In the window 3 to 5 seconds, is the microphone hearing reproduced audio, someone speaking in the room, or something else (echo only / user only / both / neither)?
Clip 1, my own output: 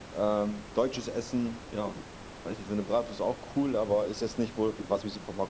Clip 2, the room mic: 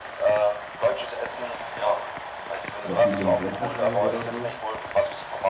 both